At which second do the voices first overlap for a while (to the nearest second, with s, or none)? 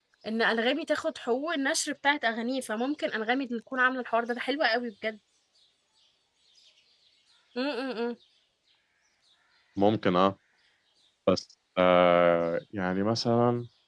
none